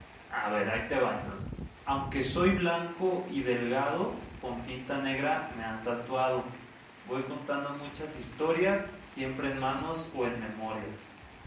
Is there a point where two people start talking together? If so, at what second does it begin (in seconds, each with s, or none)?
none